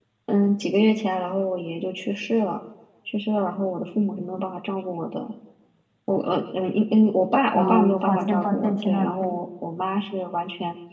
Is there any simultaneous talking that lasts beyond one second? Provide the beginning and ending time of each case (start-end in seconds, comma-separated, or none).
7.5-9.3